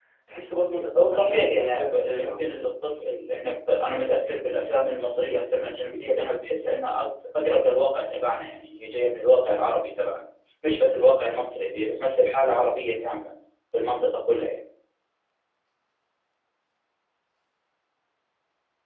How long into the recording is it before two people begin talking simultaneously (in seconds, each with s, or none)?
1.1 s